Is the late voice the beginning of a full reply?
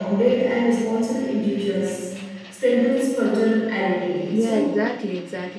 Yes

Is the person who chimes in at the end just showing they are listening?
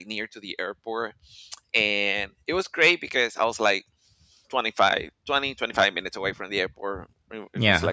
Yes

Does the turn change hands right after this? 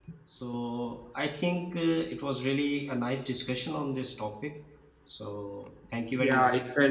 Yes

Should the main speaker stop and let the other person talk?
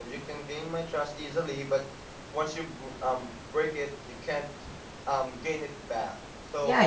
Yes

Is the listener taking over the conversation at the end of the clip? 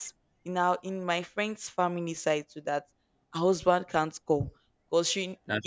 No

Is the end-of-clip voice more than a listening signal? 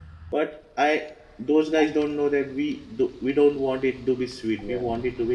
No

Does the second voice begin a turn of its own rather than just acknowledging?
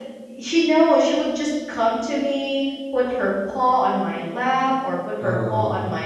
No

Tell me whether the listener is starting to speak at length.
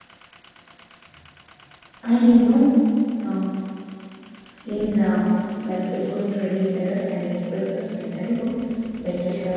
Yes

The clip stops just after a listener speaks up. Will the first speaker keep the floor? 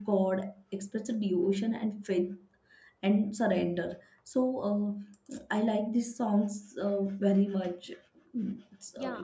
No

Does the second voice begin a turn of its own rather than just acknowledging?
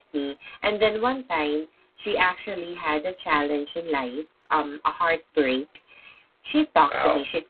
No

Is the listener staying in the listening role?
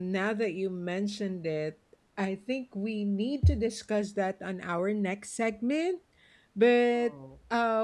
Yes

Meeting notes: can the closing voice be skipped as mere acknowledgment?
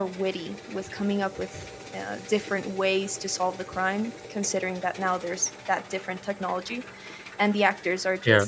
Yes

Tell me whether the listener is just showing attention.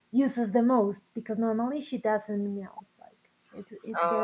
Yes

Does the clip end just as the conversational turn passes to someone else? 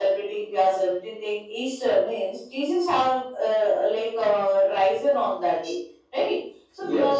No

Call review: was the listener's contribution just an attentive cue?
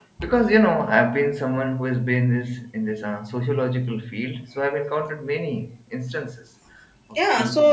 No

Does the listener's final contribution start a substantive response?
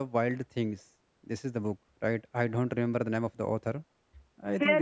Yes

